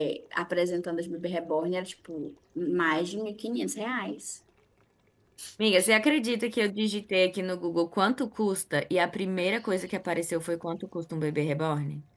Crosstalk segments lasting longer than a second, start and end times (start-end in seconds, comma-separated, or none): none